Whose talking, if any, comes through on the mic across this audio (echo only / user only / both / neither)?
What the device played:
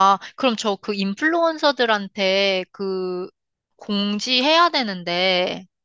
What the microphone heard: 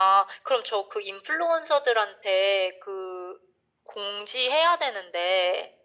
echo only